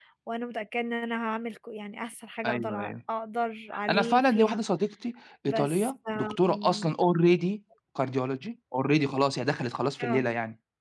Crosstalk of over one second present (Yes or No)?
Yes